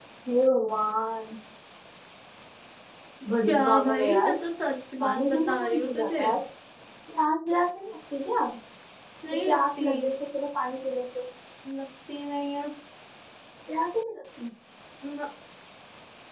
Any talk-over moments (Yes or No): Yes